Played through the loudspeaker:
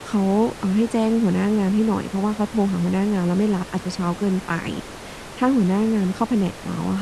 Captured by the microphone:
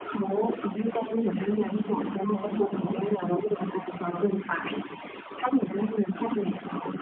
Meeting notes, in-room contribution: present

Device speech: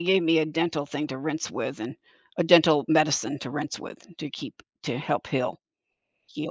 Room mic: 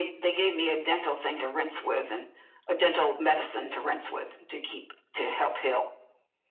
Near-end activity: none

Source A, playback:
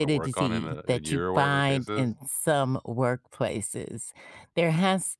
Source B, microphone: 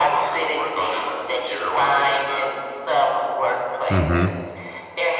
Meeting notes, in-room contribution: present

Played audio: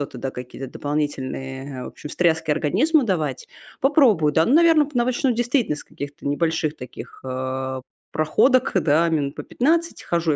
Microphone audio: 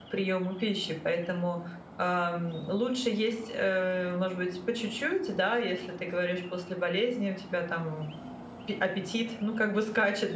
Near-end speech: present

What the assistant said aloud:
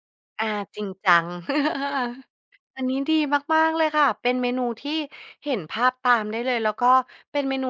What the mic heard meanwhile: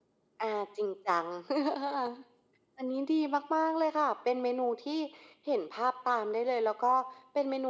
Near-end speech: none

